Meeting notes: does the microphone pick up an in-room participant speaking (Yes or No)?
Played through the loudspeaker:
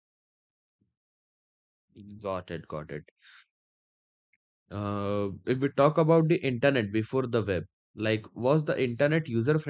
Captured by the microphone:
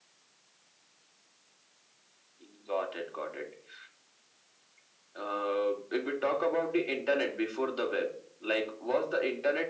No